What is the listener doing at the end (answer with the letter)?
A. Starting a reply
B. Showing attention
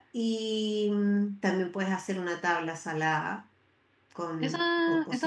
A